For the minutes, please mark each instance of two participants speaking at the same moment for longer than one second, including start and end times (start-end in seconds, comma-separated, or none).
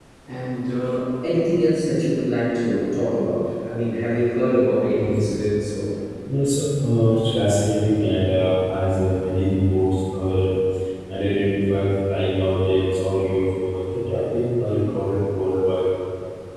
none